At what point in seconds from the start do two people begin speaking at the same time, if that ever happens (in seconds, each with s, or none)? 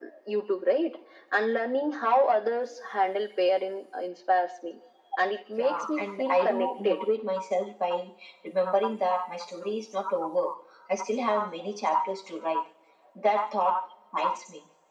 5.6 s